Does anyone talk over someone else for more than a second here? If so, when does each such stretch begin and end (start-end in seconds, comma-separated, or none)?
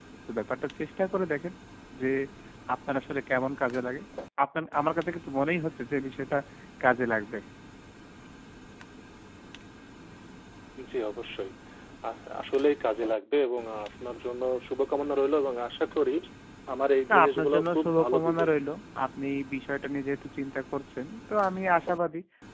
17.1-18.5